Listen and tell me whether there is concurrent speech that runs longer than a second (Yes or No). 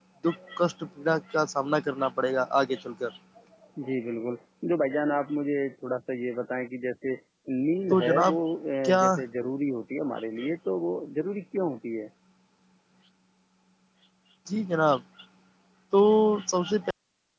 No